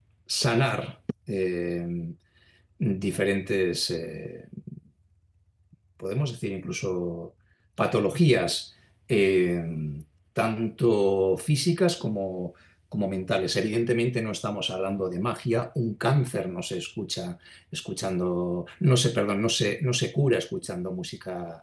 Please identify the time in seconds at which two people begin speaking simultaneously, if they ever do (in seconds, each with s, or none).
none